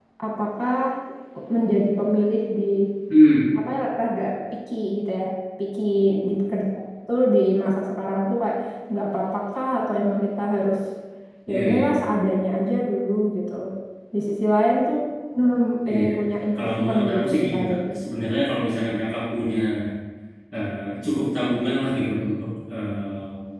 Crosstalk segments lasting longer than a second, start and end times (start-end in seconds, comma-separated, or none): 16.6-17.9